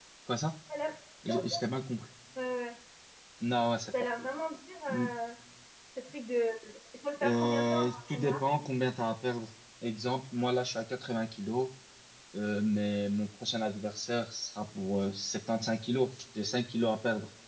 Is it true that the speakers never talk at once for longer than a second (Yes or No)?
No